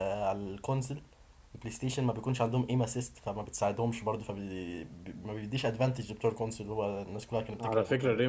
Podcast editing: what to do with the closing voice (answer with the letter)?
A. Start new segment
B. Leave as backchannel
A